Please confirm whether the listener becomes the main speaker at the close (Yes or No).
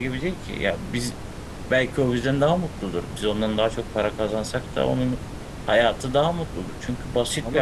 Yes